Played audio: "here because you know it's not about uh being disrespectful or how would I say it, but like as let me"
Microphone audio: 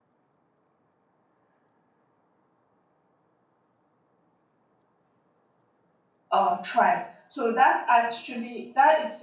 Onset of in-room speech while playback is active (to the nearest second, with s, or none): 6 s